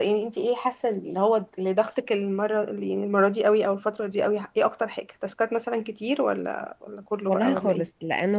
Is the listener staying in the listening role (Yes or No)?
No